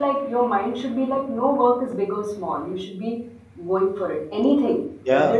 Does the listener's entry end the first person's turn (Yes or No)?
No